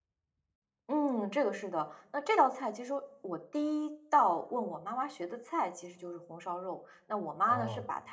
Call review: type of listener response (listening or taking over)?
listening